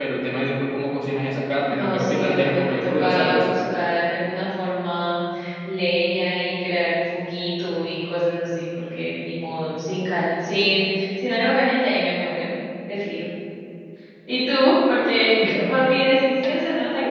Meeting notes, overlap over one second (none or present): present